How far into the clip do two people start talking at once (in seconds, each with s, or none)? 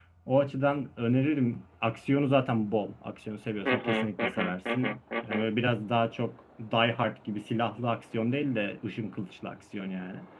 3.6 s